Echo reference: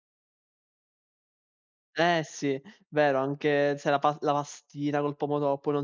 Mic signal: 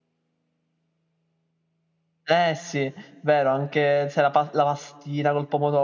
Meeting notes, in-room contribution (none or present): none